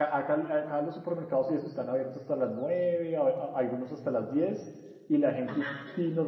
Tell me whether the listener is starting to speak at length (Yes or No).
No